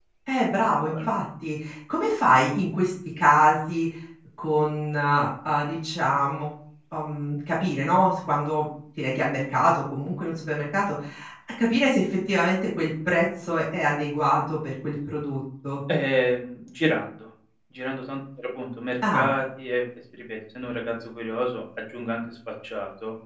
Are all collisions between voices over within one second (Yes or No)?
Yes